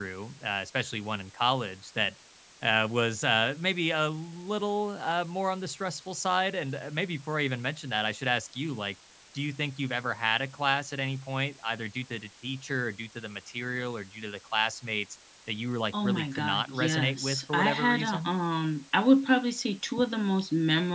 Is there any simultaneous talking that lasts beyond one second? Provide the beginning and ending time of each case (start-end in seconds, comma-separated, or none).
15.9-18.3